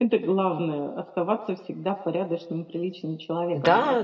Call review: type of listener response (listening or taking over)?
taking over